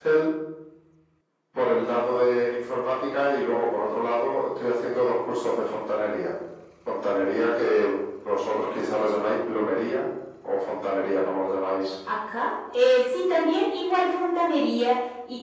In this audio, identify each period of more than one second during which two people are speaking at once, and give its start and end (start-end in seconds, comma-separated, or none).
none